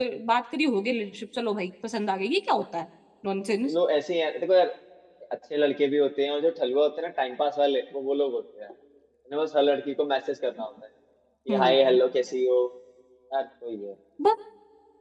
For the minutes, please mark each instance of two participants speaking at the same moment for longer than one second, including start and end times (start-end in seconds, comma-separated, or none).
none